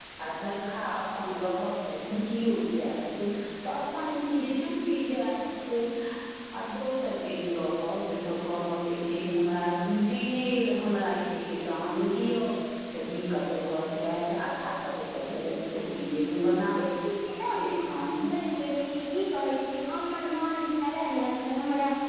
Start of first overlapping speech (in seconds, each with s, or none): none